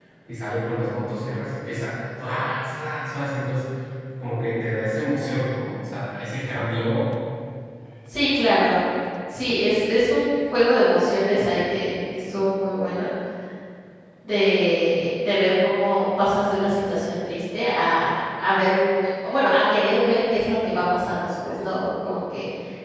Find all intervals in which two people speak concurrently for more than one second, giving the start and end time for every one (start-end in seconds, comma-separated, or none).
none